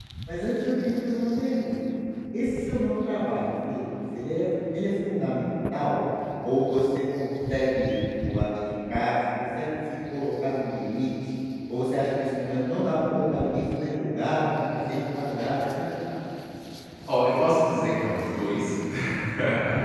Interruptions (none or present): none